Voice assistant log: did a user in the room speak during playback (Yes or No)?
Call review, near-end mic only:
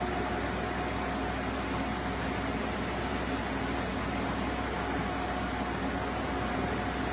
No